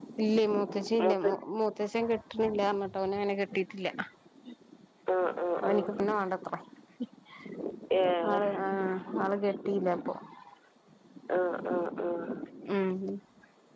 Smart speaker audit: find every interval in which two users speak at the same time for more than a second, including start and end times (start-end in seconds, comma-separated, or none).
none